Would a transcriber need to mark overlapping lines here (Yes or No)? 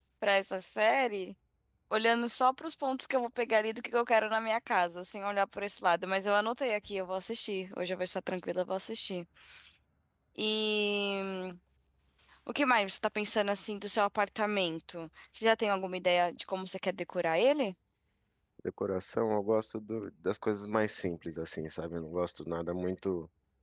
No